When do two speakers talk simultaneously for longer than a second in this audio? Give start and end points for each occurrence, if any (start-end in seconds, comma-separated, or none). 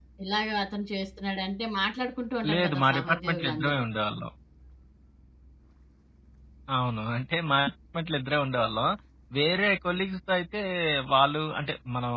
2.5-3.8